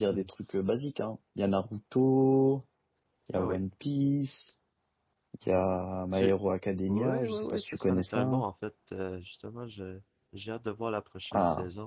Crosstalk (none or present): present